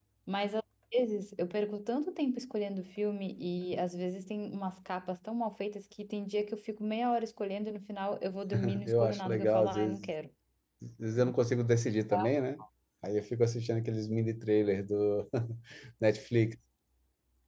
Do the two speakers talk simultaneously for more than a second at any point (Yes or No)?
Yes